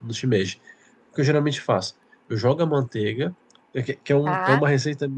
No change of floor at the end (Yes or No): Yes